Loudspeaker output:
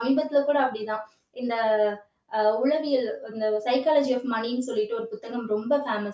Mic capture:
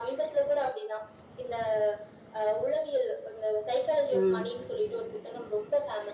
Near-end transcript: ம்.

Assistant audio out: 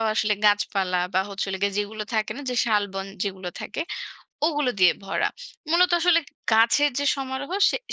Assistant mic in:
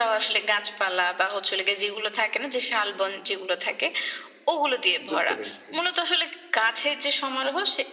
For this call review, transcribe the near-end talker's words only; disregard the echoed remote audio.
বুঝতে পেরেছি।

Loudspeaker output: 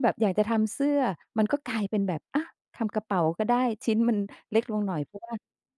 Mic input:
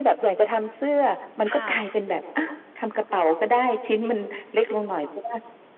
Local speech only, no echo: ค่ะ โอ้

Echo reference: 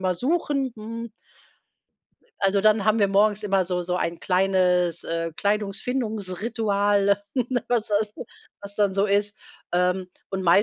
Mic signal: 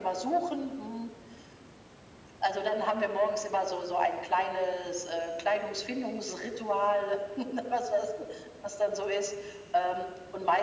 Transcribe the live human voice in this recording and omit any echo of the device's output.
none

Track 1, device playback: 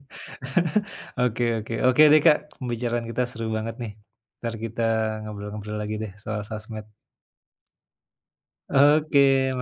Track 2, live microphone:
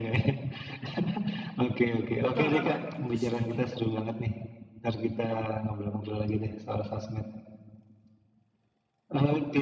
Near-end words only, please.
Betul banget, itu setuju.

